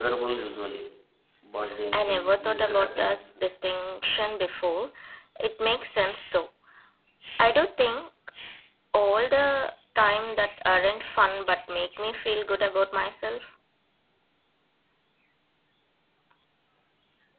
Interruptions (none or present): present